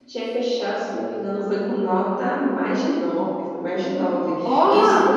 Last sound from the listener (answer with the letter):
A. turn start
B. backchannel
B